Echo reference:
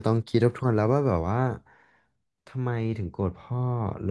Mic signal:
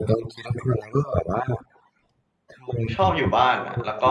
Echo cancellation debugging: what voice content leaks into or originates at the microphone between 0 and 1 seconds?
echo only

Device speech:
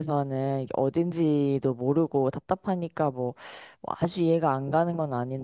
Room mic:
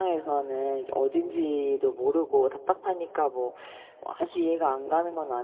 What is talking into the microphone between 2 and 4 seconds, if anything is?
echo only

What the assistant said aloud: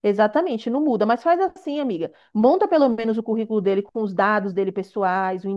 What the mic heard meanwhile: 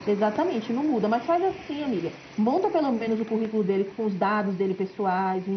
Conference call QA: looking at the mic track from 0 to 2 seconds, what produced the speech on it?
echo only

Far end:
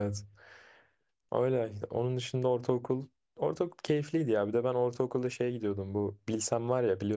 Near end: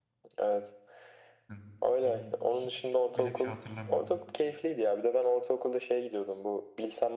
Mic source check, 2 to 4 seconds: both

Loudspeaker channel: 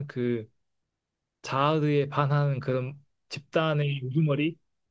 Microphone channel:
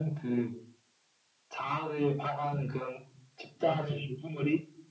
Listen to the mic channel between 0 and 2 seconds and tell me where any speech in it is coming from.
echo only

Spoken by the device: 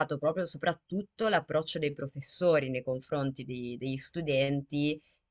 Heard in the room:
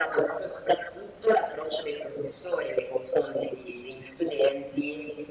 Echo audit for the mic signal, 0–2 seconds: echo only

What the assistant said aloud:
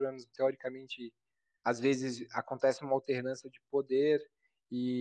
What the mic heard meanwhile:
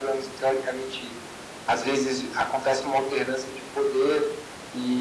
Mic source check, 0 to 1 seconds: echo only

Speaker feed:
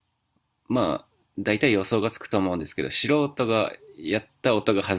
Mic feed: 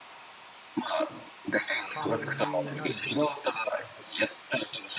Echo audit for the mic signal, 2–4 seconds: both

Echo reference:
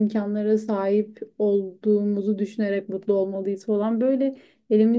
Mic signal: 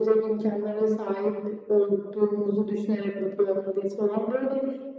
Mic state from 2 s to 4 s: echo only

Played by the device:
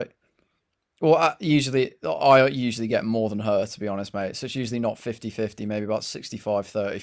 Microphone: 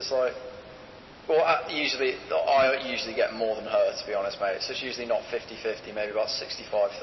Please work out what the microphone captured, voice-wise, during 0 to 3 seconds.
echo only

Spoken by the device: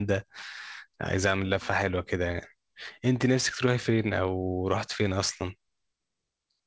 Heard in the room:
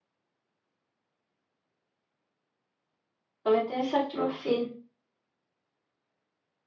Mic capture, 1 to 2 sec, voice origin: neither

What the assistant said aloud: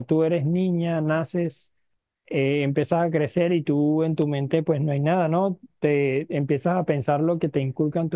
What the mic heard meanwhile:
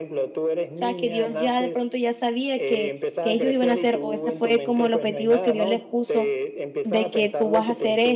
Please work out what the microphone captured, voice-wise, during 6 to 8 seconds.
both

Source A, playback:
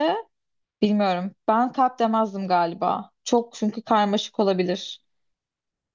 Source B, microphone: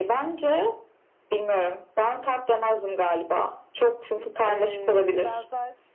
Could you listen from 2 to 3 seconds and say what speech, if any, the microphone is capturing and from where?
echo only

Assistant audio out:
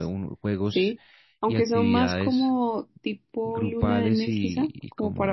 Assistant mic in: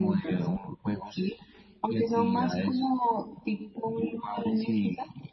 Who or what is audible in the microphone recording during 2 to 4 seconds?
echo only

